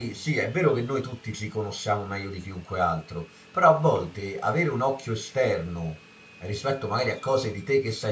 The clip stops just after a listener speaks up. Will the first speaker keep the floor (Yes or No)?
Yes